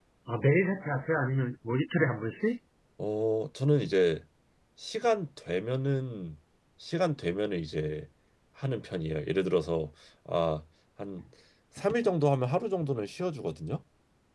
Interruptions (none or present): none